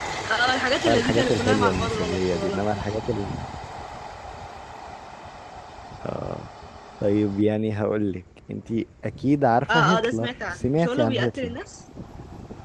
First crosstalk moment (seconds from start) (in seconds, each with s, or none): 0.8 s